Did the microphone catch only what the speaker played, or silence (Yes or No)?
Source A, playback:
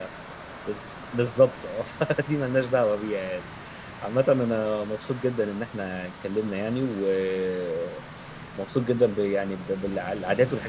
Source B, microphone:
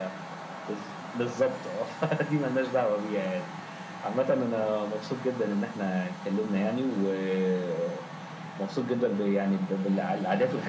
Yes